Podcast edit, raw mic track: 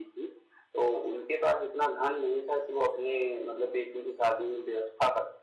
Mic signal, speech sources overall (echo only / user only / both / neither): echo only